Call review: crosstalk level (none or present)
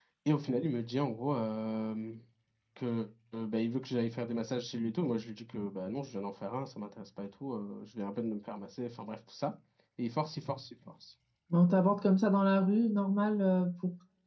none